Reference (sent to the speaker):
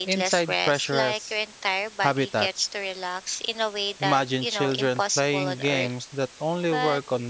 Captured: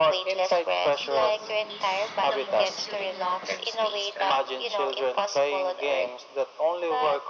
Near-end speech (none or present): present